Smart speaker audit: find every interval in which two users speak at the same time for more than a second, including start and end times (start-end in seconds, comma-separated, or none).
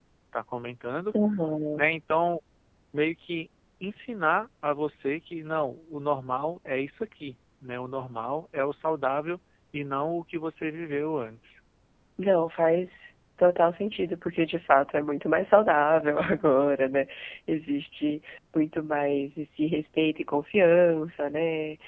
none